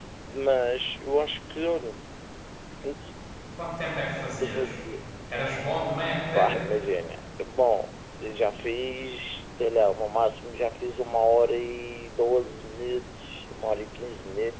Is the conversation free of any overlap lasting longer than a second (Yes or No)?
Yes